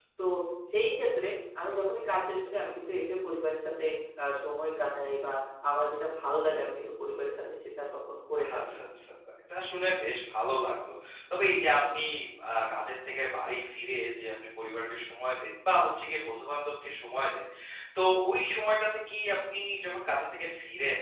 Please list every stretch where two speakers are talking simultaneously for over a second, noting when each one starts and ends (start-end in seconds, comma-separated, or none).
none